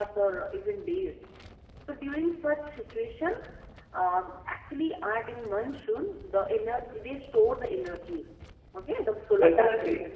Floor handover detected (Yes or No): Yes